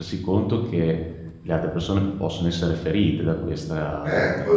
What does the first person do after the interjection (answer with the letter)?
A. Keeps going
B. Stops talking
B